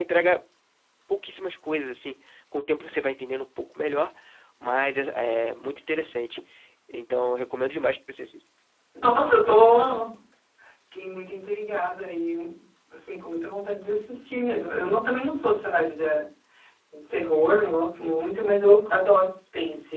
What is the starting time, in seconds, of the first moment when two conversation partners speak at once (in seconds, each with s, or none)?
none